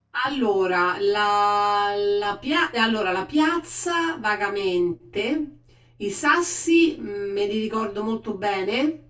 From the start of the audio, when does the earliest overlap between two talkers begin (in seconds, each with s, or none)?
none